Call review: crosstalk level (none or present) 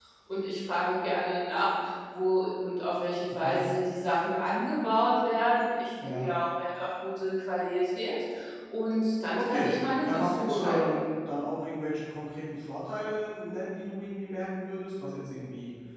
present